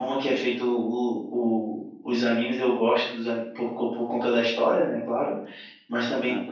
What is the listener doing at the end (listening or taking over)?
listening